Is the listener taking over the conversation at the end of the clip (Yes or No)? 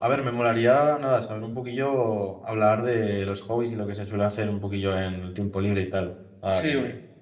Yes